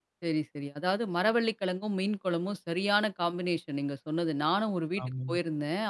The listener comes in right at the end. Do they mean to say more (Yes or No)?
No